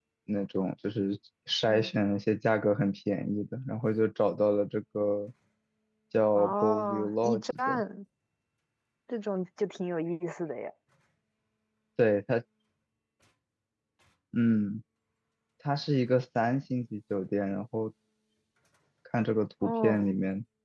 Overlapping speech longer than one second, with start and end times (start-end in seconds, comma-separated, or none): 6.3-7.8